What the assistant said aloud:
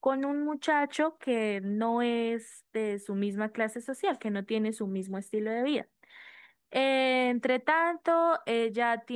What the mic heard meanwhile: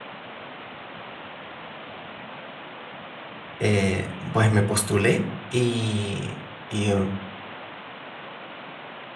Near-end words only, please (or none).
eh, pues me postulé y, y, eh,